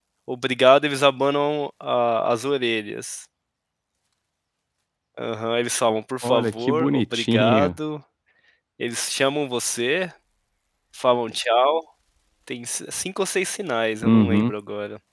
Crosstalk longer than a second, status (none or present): present